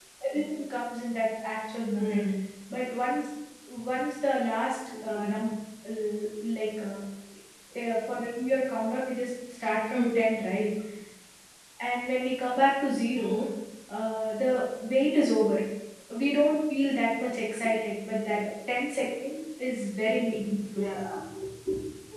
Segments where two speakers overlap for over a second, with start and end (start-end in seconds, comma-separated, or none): none